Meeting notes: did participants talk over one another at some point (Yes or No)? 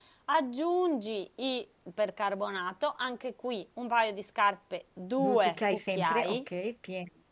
Yes